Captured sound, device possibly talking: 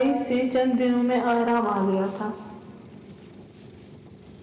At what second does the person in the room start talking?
none

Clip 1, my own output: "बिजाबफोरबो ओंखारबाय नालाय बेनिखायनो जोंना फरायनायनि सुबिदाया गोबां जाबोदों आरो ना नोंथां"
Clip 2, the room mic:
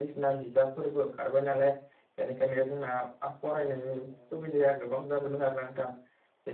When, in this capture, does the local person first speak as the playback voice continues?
none

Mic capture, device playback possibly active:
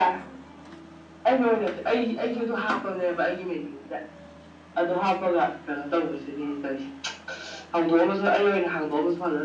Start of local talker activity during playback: none

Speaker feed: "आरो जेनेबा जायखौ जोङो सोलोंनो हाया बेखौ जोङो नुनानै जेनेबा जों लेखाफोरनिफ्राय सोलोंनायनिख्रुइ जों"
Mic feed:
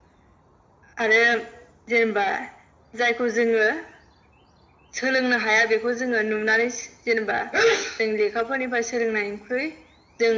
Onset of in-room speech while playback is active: none

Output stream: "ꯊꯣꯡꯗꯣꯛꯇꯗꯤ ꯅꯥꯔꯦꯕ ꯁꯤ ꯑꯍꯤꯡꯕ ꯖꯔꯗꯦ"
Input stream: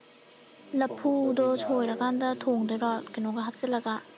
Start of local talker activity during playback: 0.8 s

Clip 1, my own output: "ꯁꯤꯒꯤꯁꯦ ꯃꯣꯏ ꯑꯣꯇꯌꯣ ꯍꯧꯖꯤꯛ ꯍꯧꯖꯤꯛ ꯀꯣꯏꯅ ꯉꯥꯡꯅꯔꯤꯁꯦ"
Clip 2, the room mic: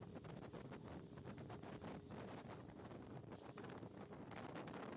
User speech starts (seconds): none

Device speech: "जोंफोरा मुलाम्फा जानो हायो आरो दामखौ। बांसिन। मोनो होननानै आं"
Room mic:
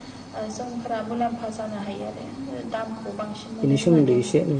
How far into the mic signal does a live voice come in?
3.6 s

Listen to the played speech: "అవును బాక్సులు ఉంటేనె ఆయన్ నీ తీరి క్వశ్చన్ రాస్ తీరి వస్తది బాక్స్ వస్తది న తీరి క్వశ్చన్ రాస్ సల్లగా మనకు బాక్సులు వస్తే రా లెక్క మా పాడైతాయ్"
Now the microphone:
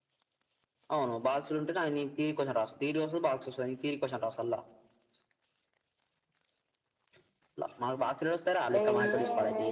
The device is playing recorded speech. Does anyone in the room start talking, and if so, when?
8.8 s

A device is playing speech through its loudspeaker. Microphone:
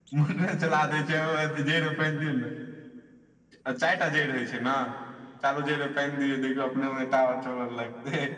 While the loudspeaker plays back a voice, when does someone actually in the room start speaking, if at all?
none

